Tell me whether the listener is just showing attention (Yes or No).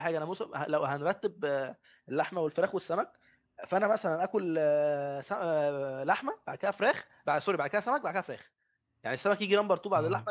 Yes